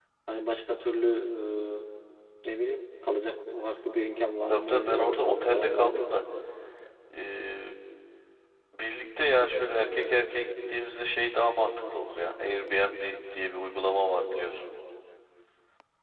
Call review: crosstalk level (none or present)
present